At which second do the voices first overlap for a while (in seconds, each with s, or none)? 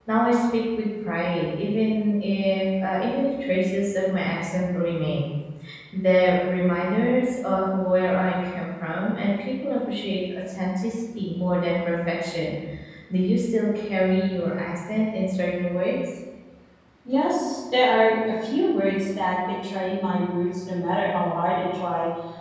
none